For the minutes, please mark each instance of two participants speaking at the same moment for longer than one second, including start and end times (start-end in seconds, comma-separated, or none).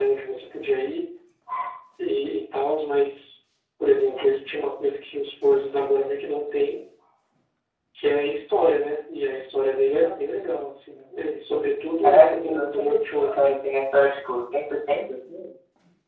12.0-13.5